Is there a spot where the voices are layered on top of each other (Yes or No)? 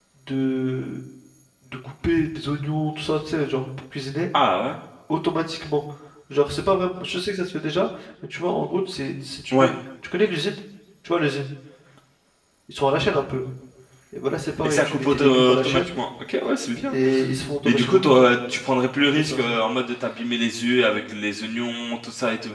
Yes